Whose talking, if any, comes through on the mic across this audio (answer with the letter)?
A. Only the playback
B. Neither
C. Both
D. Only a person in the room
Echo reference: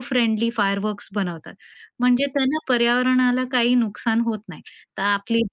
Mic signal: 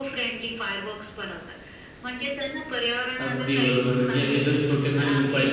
C